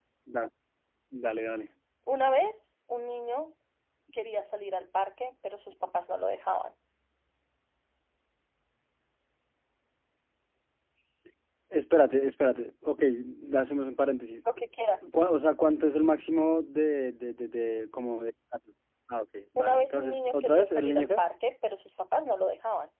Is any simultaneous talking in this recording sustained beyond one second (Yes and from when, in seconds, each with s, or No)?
Yes, from 19.6 s